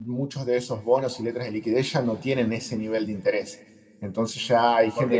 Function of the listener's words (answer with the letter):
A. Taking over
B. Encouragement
A